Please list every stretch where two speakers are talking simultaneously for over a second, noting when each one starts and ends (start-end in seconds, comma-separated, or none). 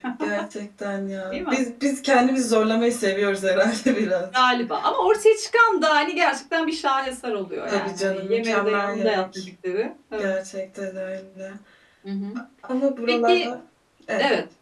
7.7-9.4